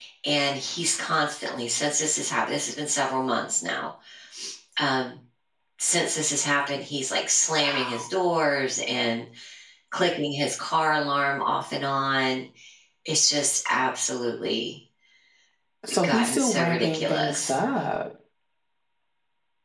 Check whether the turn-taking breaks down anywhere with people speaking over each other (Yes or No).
Yes